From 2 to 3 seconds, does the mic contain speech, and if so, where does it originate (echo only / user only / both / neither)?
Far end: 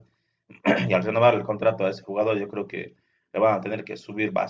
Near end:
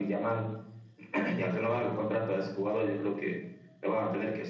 echo only